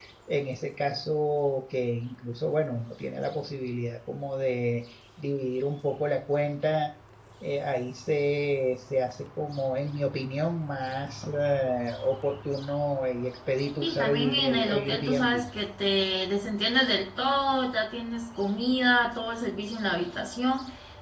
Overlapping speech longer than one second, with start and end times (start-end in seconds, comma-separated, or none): 13.8-15.4